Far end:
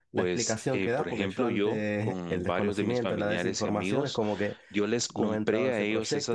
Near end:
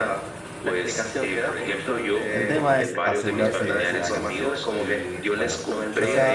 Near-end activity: present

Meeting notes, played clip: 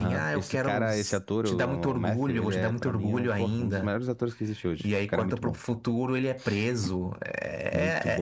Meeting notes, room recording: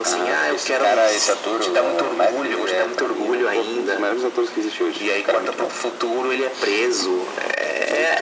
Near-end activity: none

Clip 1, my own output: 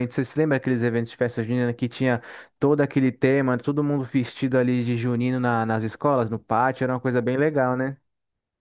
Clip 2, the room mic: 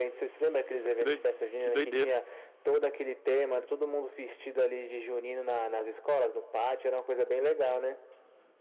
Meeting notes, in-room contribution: present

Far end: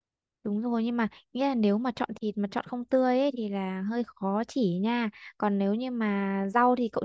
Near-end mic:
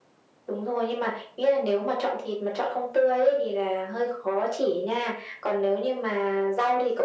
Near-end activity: none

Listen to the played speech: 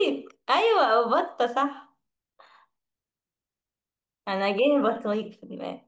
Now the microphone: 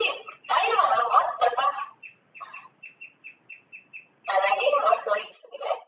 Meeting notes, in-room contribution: none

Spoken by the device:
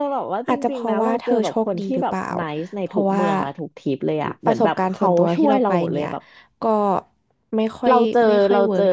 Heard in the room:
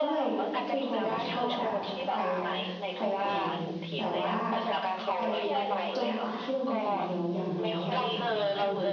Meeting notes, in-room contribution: present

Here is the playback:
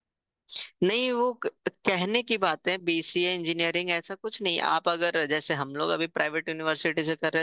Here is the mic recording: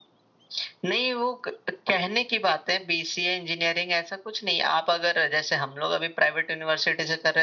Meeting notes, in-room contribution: none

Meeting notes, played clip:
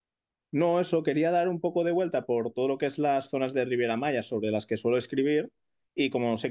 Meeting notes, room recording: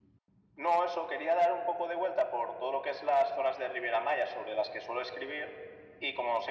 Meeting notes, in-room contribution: none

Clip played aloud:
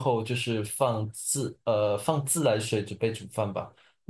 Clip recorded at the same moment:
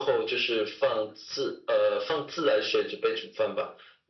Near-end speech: none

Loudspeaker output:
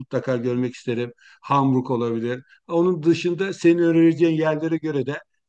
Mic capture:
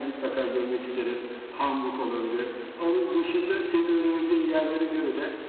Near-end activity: none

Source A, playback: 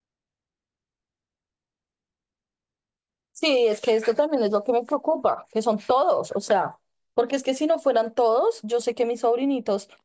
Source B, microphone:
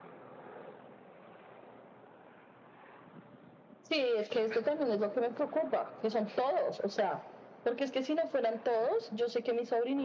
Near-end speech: none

